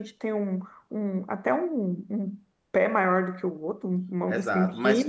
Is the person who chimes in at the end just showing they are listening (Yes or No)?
No